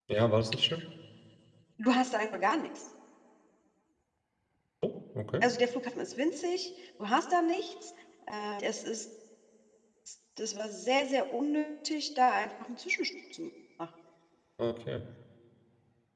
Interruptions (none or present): none